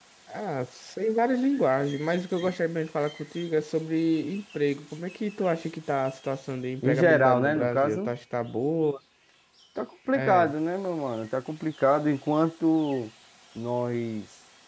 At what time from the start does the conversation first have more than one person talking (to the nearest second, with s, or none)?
7 s